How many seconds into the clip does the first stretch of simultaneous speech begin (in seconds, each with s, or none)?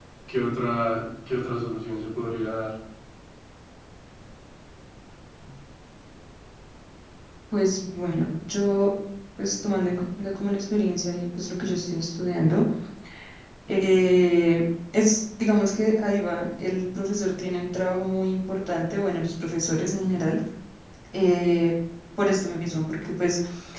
none